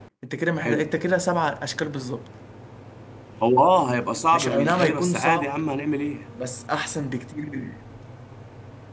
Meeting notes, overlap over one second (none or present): present